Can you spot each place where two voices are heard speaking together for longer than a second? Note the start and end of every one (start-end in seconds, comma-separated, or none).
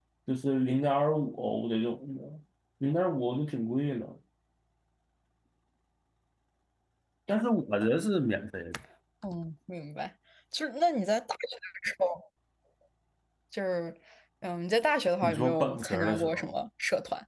15.2-16.5